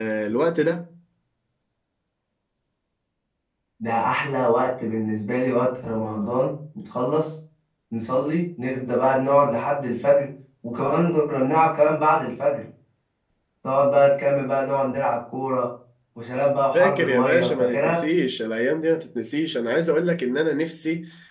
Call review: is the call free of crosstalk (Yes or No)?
No